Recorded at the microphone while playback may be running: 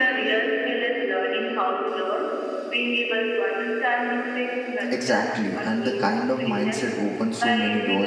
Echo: present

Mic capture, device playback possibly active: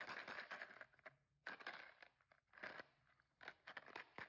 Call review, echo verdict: none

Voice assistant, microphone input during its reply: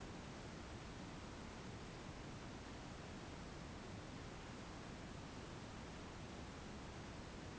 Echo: none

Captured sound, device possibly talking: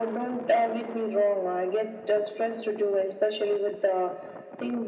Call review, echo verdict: present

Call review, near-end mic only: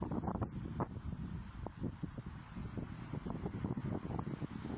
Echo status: none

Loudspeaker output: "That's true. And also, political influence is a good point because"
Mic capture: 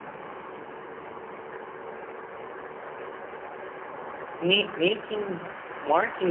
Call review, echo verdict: none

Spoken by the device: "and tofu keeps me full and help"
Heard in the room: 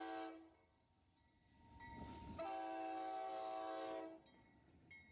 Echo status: none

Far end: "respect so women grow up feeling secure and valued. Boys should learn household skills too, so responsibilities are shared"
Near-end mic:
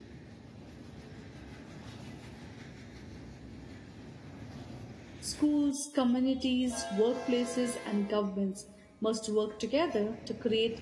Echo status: none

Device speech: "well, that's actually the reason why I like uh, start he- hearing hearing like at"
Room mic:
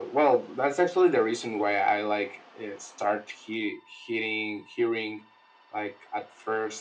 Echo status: present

